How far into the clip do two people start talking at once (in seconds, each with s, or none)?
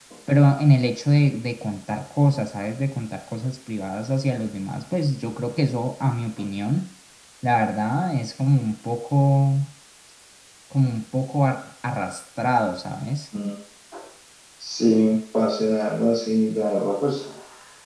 none